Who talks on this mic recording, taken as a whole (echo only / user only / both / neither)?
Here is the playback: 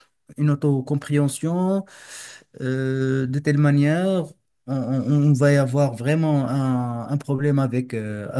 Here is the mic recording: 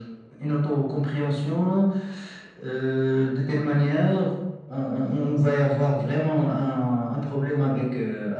echo only